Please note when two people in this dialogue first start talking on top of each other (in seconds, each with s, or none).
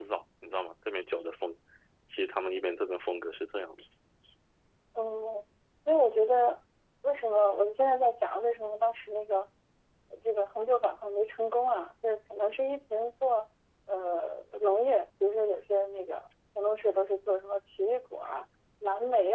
none